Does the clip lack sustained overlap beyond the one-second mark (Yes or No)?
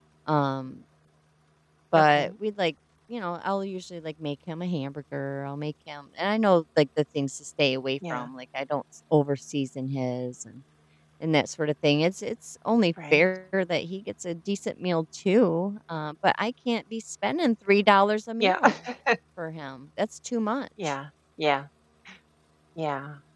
Yes